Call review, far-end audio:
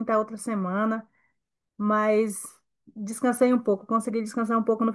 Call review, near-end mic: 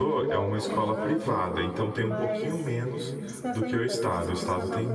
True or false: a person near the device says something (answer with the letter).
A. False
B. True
B